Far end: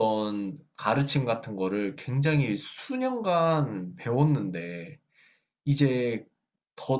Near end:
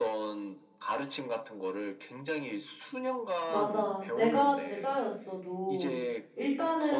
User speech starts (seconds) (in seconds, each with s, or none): 3.4 s